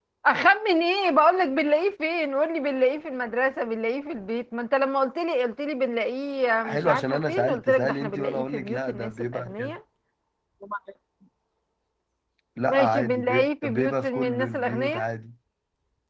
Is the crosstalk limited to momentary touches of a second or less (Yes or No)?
No